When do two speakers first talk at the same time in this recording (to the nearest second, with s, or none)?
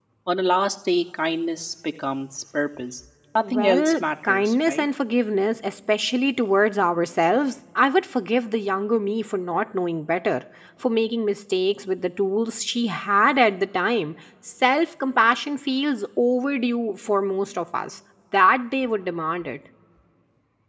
3 s